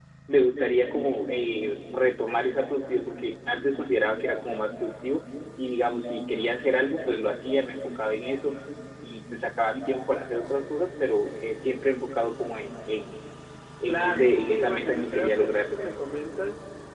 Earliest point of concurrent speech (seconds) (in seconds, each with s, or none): 13.9 s